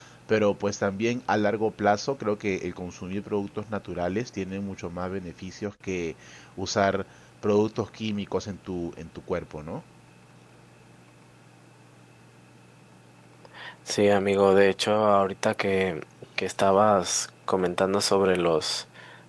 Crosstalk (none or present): none